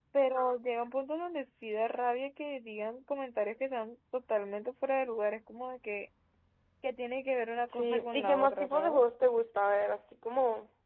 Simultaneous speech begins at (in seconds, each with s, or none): 7.7 s